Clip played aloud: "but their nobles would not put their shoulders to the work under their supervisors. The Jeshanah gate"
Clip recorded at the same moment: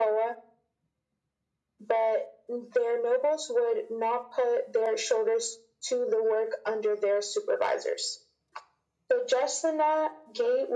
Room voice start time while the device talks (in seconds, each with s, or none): none